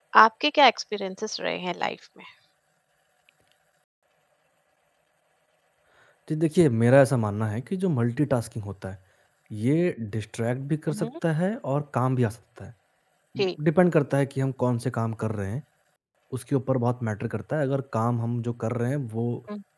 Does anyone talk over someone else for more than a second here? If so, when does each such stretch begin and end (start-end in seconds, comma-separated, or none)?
none